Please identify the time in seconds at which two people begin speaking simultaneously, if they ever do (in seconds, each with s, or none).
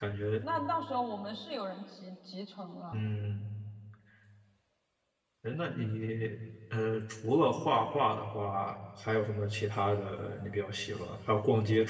none